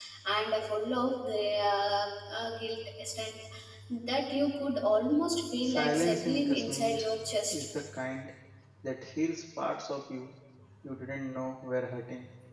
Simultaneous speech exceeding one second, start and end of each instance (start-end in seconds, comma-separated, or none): 5.6-7.0